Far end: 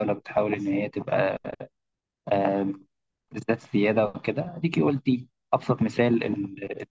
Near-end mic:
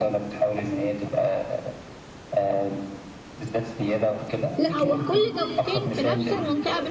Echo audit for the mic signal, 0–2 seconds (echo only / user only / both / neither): echo only